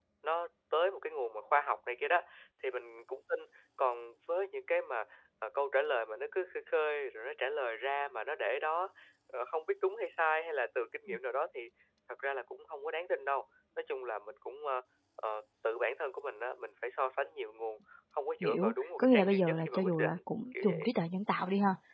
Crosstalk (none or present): present